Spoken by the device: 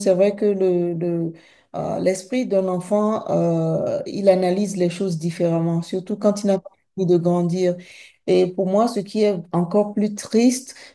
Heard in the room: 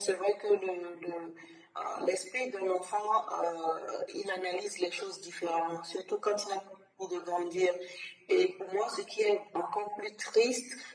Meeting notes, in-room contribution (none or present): none